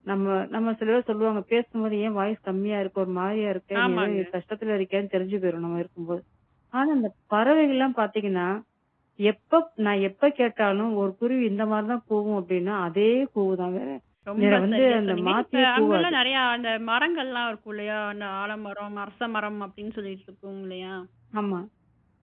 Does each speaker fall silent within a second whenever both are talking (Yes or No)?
No